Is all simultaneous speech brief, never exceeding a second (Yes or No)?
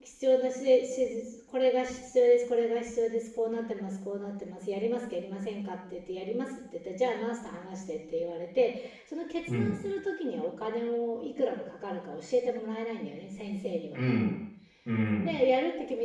Yes